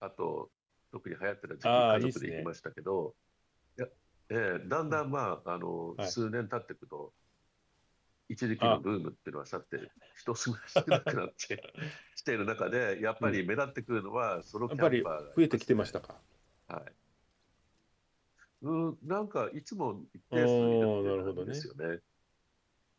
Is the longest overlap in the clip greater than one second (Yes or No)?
Yes